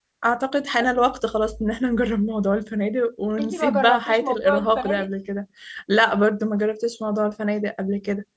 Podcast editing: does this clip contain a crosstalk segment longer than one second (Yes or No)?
Yes